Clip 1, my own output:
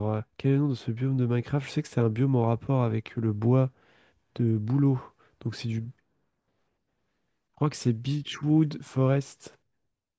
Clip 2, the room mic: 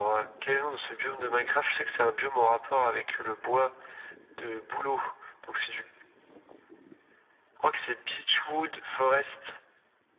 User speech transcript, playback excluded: none

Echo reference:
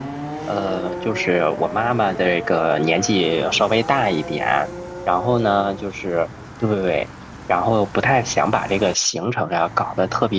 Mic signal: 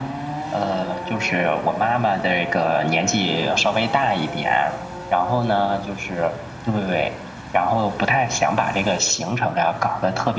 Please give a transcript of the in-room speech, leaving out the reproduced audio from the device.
none

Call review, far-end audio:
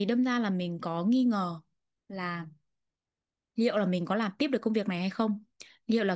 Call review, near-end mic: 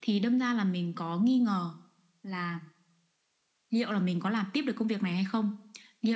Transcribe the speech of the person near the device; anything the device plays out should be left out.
none

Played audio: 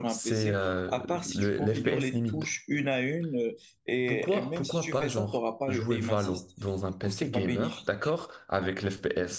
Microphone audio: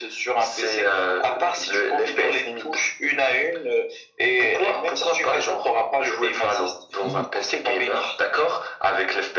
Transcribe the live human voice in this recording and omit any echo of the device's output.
ils-

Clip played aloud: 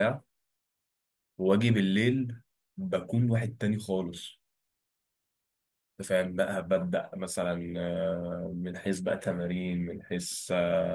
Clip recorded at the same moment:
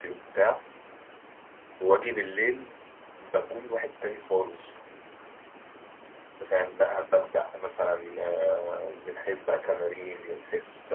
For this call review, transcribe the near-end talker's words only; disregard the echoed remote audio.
none

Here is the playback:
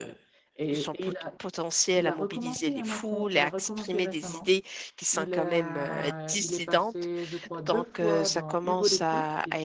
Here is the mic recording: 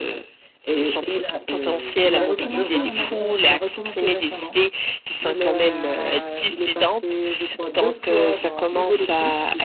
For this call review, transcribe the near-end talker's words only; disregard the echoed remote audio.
C'est, c'est presque un devoir qu'ils ont.

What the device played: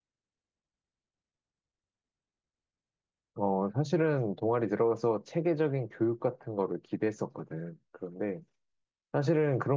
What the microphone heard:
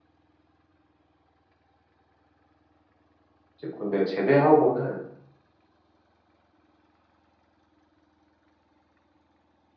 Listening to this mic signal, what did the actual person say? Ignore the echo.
이제 군대 제대하고는

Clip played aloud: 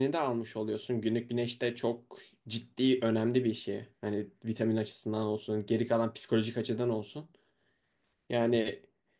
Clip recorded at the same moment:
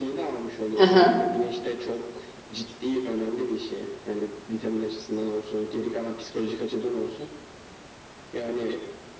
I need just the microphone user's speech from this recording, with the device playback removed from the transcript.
Hı hı.

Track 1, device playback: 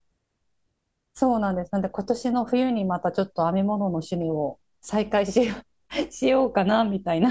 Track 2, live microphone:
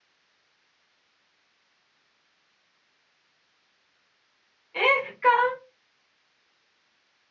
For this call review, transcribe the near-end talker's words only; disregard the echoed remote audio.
え、かわ

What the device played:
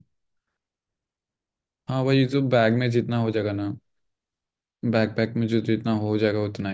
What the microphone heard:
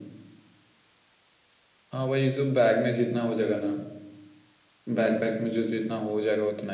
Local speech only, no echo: none

